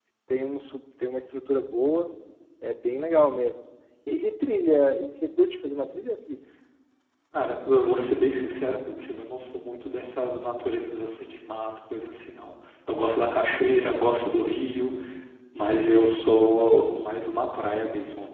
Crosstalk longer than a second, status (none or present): none